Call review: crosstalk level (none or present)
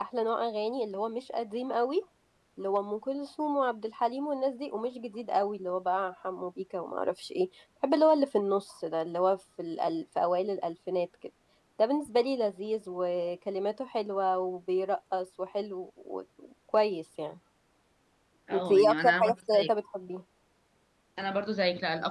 present